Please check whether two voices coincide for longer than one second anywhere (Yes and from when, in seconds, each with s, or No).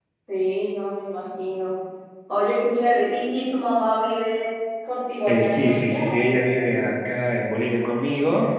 Yes, from 5.3 s